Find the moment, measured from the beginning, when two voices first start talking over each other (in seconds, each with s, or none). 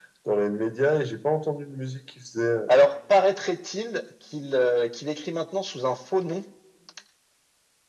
none